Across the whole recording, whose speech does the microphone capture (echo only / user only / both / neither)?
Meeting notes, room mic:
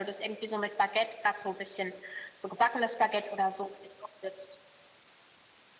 echo only